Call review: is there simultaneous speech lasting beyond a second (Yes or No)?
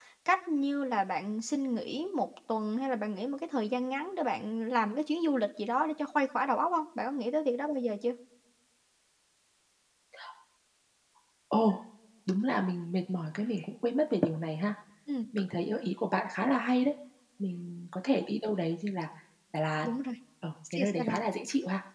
No